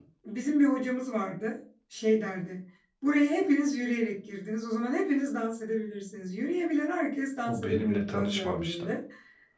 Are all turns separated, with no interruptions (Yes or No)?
No